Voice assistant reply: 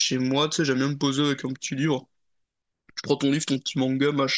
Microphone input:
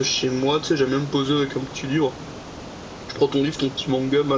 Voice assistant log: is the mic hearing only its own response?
Yes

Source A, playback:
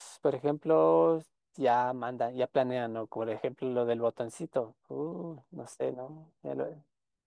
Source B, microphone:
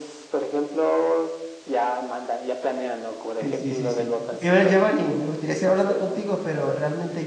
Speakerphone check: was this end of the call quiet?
No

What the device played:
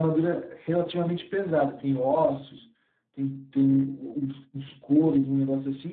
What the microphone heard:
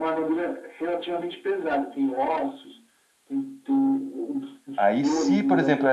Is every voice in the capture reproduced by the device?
No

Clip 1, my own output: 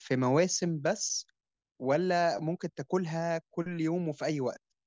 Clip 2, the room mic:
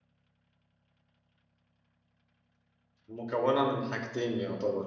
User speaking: Yes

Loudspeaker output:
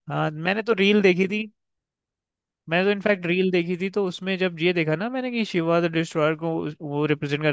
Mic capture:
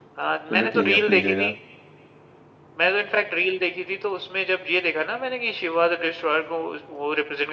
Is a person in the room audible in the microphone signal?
Yes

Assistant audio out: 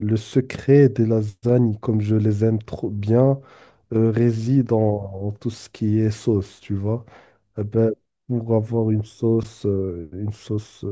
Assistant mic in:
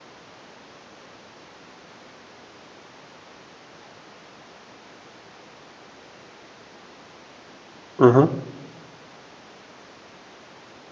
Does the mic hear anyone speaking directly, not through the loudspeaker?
Yes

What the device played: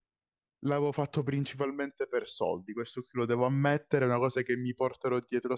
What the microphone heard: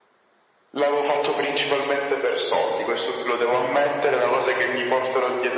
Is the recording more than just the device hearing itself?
No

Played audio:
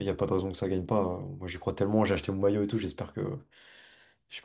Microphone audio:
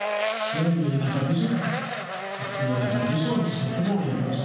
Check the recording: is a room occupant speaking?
Yes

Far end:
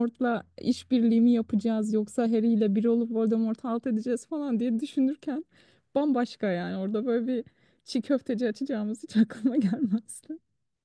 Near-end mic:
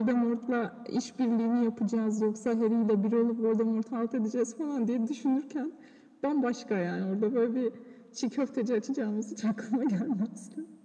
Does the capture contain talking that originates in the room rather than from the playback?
No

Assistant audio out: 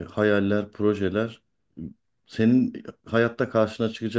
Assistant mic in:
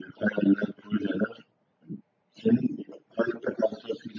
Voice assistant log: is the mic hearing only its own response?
Yes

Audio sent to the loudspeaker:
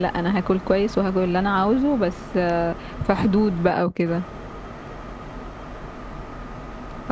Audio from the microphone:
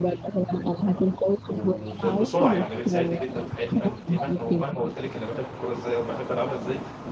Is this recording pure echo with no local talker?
No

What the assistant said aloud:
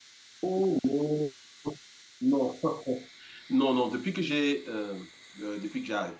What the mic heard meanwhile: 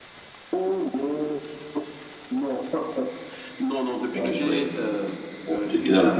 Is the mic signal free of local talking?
No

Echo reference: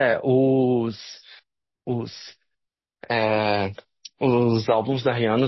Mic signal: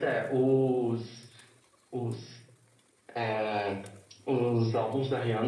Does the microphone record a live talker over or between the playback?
No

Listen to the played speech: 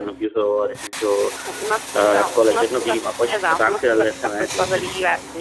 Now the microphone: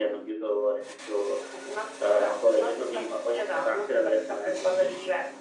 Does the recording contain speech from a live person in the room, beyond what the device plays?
No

